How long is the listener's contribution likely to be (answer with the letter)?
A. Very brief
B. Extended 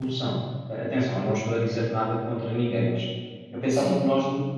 A